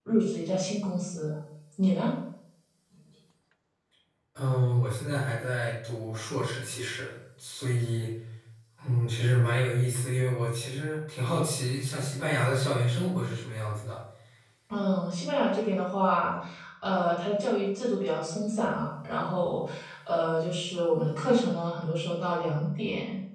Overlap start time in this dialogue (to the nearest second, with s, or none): none